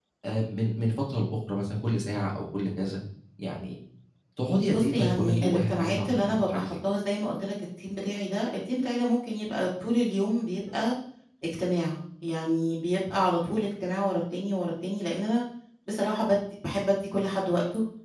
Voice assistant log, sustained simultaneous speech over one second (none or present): present